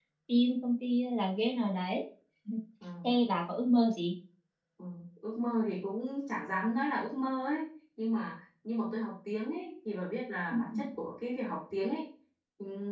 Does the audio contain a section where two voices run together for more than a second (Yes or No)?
No